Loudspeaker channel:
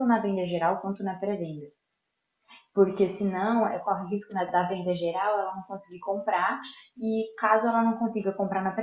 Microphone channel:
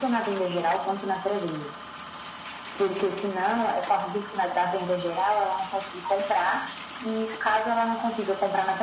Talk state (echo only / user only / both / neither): echo only